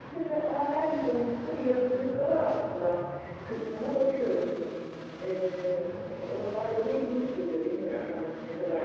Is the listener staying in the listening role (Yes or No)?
No